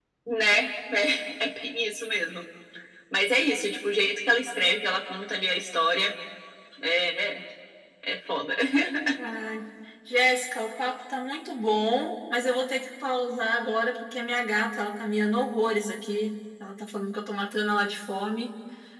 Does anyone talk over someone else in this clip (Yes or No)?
No